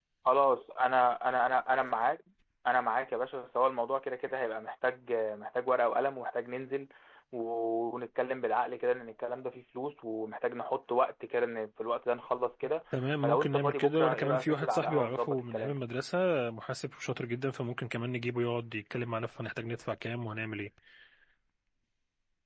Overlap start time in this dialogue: 13.2 s

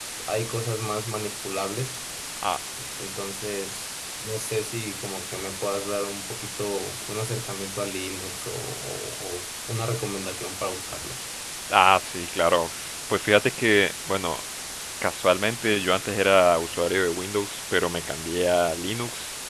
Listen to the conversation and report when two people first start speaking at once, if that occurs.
none

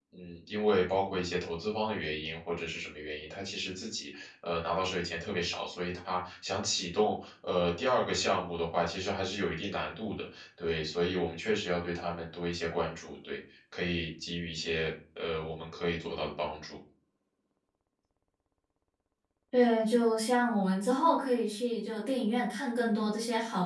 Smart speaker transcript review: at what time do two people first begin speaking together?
none

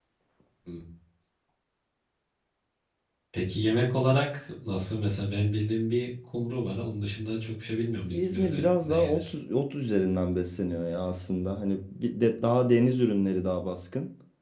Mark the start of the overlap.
8.1 s

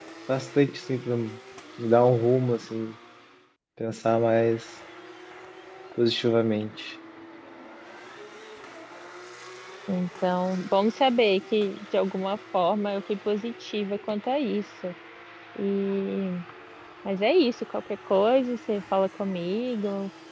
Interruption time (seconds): none

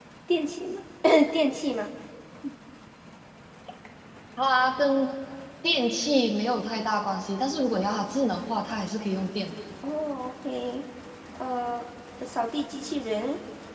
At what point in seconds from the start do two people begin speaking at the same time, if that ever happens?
none

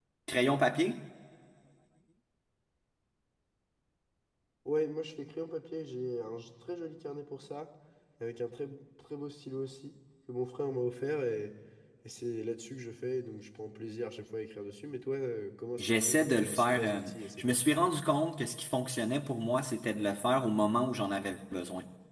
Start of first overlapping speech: 15.8 s

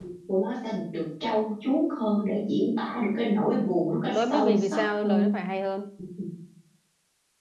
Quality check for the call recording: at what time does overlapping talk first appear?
4.1 s

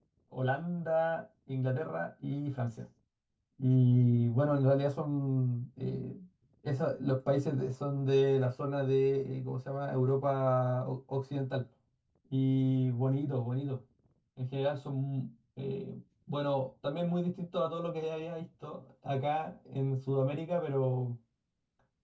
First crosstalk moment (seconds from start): none

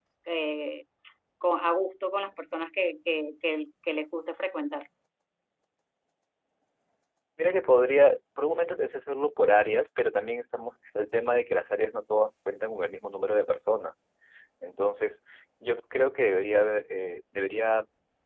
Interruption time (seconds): none

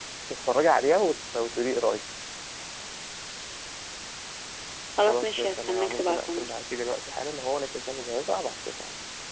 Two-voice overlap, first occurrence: 5.1 s

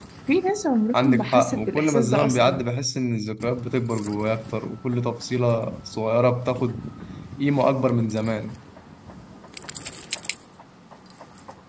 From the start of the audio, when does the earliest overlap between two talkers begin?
1.0 s

